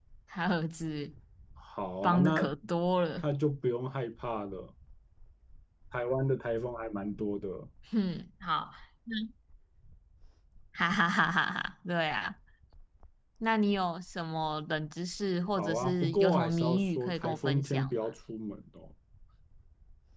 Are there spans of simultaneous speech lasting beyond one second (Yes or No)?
Yes